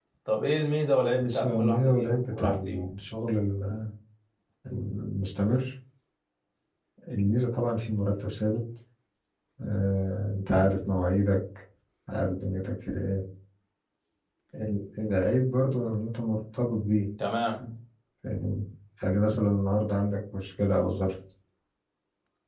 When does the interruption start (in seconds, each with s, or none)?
1.2 s